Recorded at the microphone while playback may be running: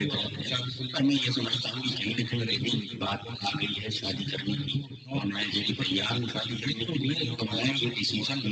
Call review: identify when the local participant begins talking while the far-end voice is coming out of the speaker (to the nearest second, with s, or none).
none